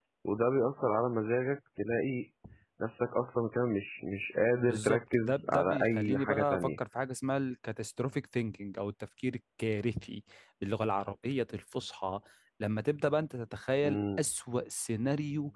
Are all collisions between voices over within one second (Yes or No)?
No